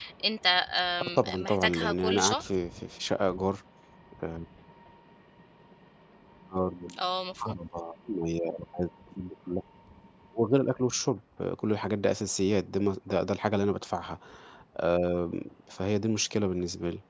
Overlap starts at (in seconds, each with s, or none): 1.0 s